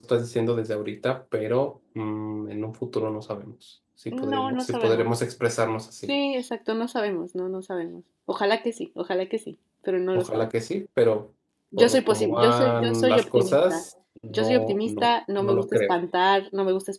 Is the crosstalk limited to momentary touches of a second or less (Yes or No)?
No